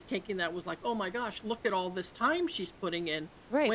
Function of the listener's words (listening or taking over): taking over